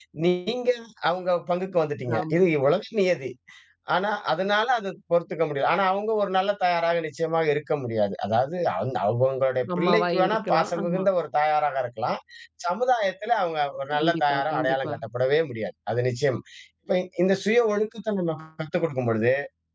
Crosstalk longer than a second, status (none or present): present